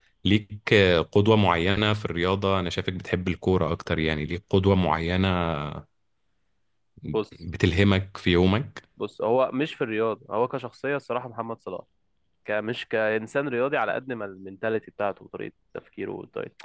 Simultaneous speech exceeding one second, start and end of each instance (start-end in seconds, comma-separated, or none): none